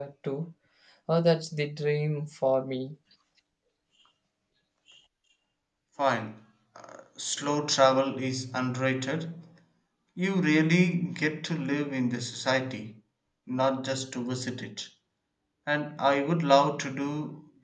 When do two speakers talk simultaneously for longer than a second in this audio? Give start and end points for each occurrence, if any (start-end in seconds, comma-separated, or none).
none